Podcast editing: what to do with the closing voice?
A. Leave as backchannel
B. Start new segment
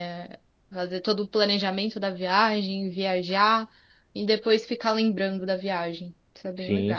B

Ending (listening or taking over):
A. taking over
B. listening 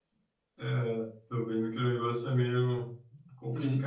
A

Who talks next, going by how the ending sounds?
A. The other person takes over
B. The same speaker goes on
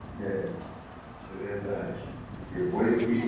B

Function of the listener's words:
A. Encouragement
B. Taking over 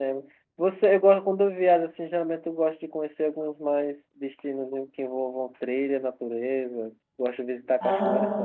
A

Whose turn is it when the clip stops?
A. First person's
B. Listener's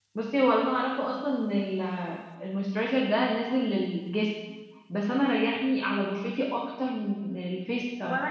B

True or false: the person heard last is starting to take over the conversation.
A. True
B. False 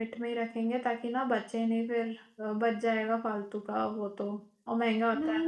A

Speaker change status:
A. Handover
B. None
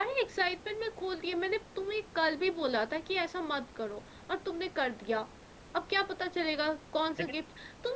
B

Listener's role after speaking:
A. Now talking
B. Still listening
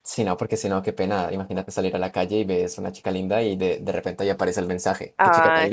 A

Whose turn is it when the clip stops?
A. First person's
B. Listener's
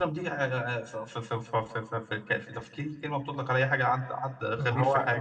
B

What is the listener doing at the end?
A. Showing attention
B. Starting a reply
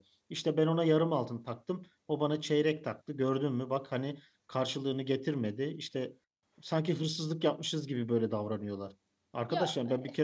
A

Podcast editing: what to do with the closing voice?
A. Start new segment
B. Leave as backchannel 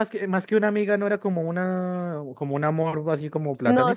A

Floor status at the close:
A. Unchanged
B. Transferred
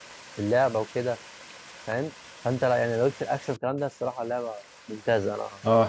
B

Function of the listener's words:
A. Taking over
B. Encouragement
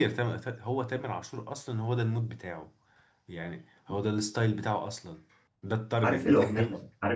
A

